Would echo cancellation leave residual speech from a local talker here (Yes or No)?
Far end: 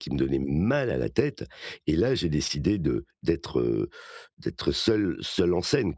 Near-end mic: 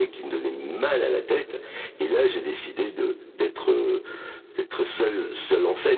No